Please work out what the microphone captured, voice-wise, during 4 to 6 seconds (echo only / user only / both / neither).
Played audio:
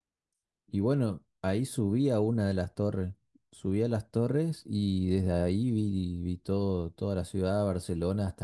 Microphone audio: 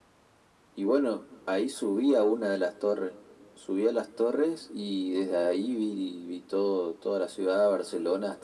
echo only